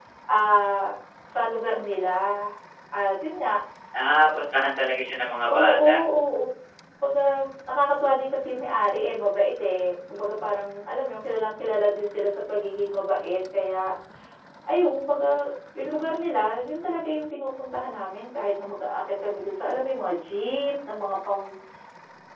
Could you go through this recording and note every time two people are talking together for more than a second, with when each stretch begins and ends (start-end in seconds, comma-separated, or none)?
none